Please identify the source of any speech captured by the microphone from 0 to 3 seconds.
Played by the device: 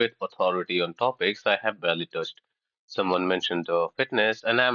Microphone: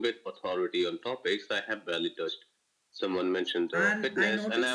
echo only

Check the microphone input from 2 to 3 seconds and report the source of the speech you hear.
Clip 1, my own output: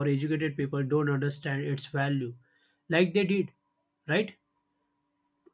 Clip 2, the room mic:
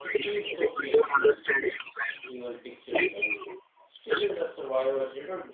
both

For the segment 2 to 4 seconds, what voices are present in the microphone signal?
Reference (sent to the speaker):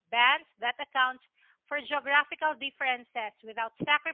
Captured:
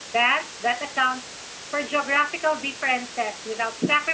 echo only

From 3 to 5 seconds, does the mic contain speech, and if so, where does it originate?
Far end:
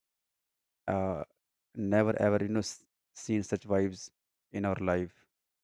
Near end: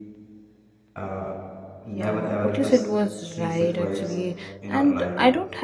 both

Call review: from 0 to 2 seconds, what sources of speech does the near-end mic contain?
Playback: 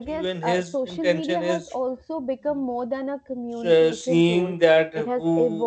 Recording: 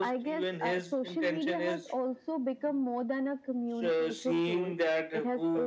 echo only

